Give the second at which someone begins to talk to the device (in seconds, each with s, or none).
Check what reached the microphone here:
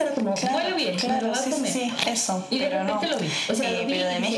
none